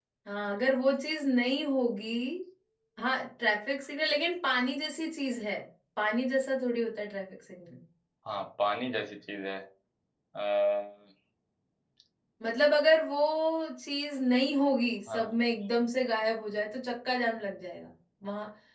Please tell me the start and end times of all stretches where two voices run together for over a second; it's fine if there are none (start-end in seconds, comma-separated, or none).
none